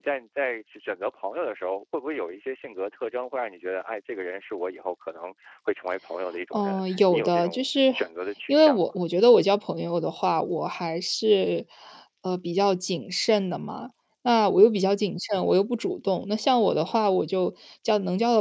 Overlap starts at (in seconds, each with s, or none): 6.5 s